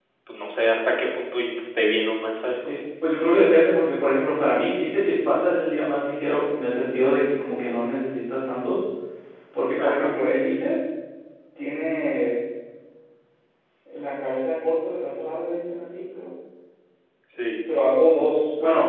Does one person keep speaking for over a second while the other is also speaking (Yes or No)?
No